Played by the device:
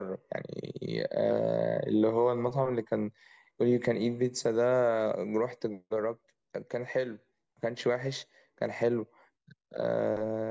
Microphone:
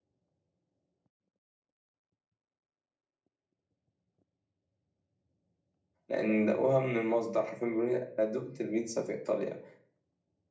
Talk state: user only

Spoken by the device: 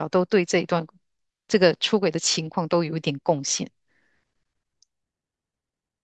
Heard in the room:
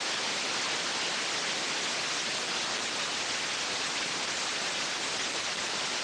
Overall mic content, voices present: neither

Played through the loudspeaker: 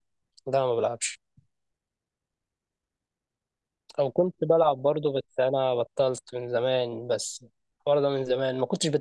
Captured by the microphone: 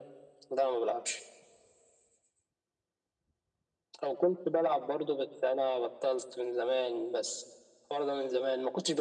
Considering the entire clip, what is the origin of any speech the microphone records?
echo only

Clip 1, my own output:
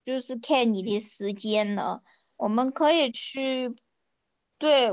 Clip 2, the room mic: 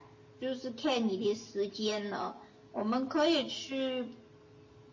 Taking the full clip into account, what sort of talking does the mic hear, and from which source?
echo only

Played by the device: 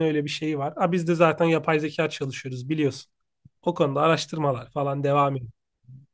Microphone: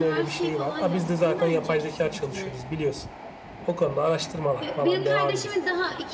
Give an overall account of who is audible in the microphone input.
both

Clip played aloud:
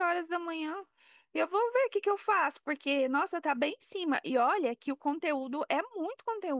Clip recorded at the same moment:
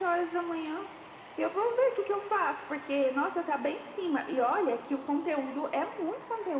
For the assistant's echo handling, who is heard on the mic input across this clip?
echo only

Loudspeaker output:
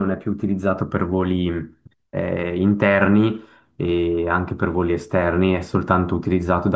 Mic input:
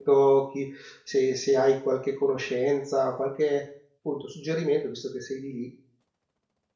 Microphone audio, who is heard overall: user only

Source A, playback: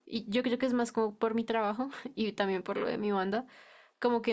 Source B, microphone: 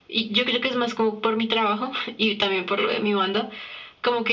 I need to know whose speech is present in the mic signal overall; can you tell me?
echo only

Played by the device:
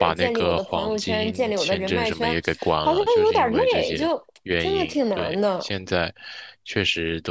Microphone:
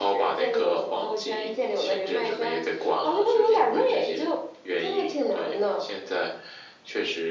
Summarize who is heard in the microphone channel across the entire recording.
echo only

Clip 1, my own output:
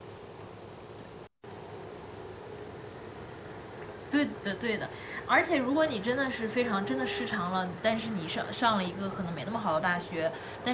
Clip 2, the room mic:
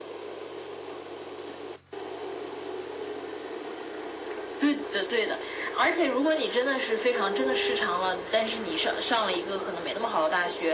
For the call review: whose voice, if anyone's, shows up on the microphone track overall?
echo only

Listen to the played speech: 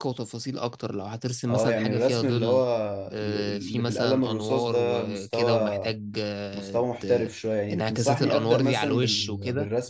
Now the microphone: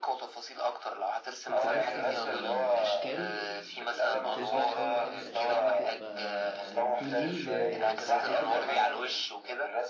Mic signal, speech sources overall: both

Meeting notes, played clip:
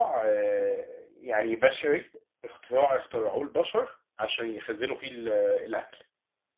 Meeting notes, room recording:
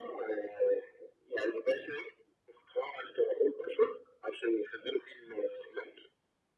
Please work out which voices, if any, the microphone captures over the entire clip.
echo only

